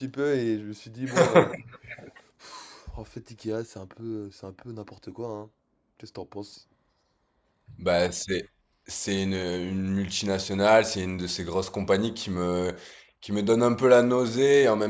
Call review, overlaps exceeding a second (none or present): none